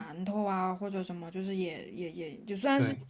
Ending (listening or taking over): listening